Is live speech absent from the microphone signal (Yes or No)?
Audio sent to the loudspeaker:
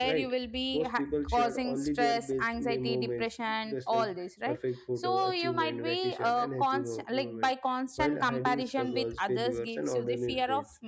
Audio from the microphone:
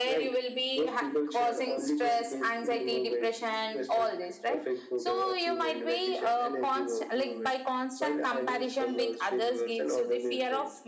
Yes